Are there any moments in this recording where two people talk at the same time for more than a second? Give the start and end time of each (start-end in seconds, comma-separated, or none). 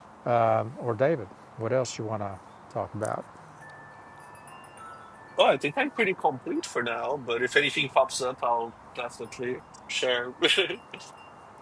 none